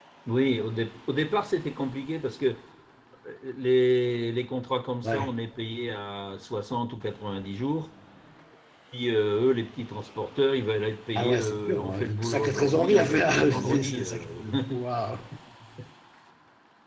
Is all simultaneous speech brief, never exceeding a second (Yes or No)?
No